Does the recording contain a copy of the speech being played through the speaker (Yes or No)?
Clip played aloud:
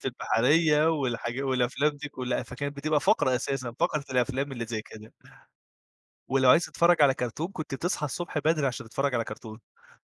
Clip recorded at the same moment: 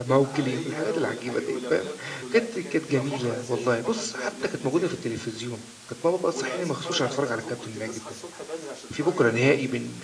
Yes